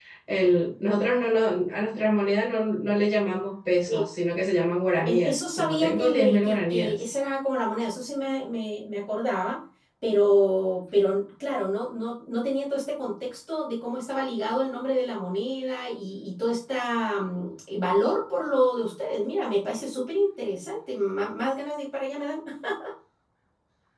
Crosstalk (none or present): present